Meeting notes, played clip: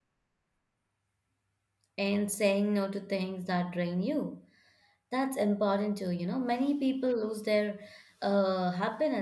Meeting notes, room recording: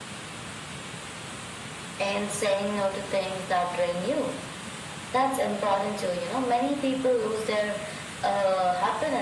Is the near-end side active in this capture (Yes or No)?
No